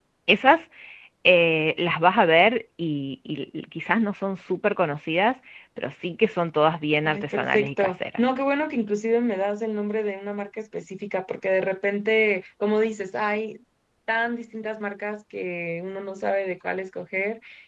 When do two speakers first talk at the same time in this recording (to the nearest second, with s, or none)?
7 s